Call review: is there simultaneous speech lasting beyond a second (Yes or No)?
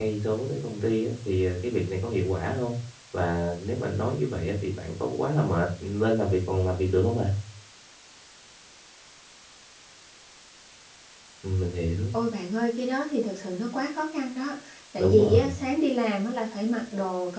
No